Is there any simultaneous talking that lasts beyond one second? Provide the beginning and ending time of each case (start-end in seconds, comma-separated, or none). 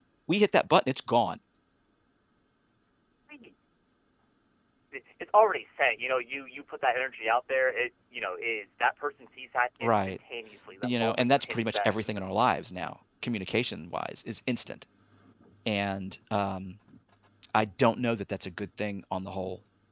10.8-12.2